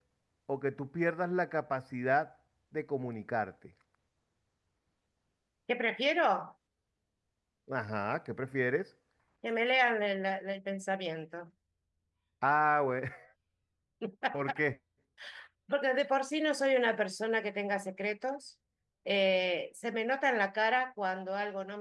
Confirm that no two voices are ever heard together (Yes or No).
Yes